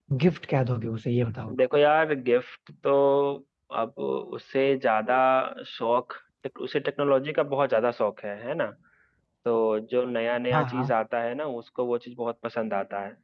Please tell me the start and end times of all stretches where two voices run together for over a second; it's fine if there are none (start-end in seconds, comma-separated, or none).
none